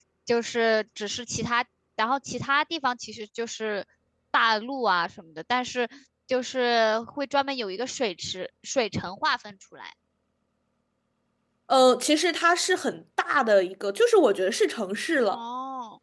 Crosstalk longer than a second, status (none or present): none